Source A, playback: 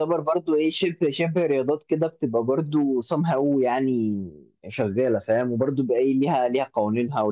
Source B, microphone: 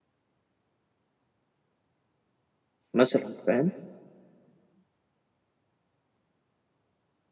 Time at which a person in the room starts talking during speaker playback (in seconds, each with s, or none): 2.9 s